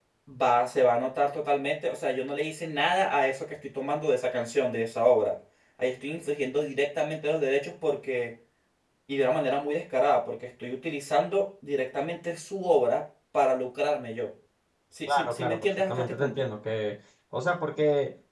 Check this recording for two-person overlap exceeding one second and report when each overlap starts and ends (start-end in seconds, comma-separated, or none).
15.1-16.4